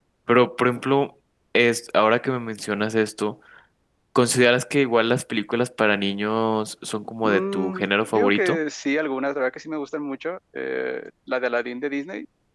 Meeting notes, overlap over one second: present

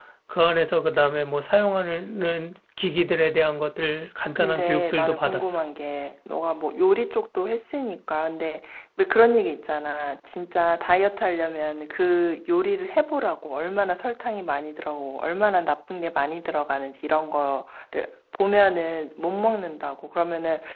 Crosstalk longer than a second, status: present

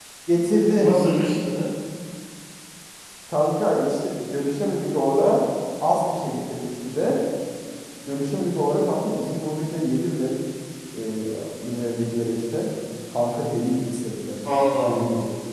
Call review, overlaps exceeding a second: none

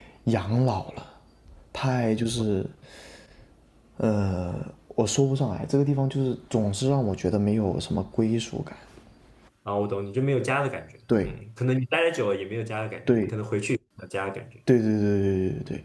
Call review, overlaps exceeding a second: none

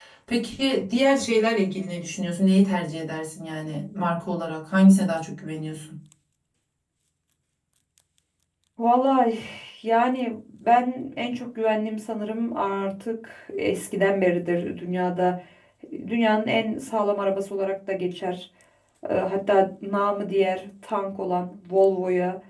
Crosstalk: none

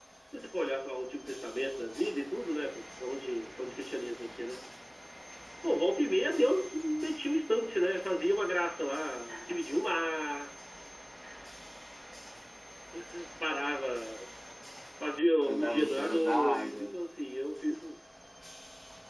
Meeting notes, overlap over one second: present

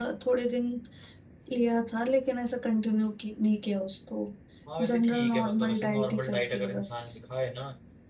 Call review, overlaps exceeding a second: present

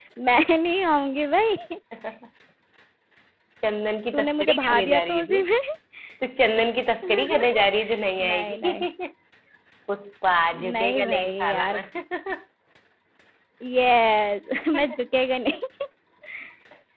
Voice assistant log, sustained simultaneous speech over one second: present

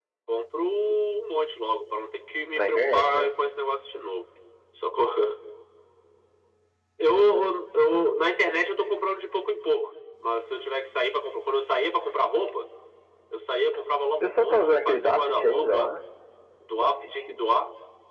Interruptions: present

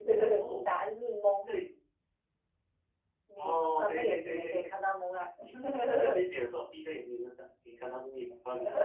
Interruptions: present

